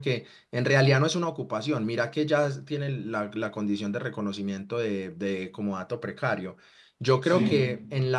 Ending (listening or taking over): listening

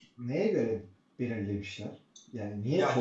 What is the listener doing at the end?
taking over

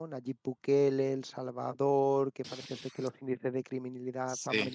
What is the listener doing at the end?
listening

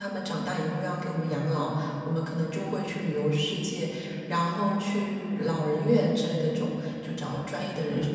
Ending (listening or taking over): listening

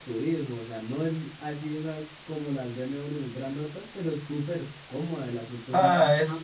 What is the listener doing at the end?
taking over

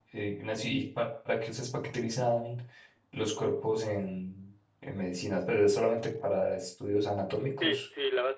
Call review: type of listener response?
taking over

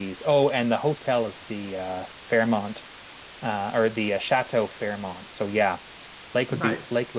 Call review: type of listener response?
listening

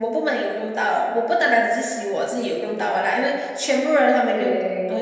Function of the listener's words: listening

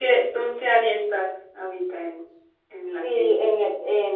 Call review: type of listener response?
taking over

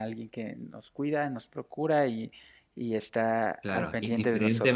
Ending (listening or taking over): taking over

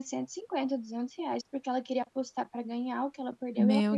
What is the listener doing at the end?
taking over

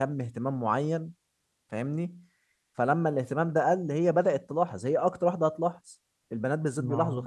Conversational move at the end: listening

